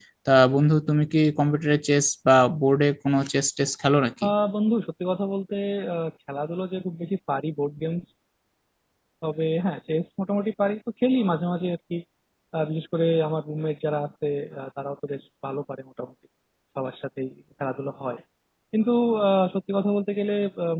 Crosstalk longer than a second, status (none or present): none